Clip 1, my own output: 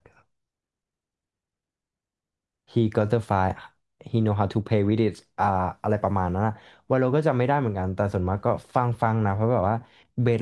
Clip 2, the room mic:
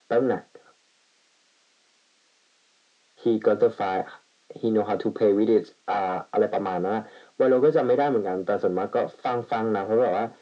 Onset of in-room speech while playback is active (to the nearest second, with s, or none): none